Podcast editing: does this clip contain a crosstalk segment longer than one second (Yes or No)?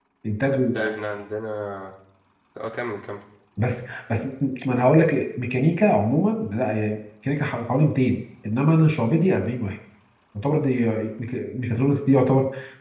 No